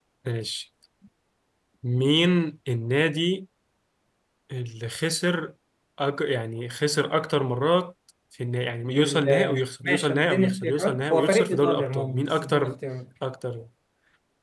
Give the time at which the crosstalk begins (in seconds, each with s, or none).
8.9 s